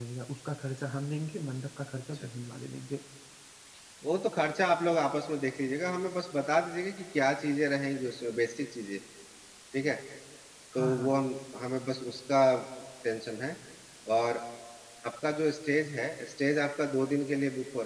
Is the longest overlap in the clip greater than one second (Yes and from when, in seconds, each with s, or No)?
No